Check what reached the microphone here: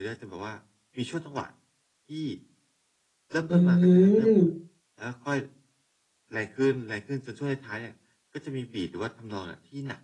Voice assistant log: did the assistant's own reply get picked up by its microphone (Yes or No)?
Yes